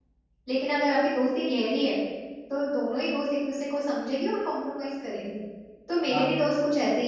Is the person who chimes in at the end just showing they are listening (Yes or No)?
Yes